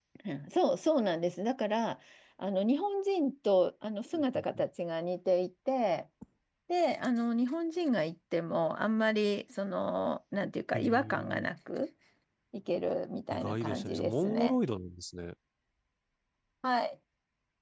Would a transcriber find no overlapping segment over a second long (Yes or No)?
No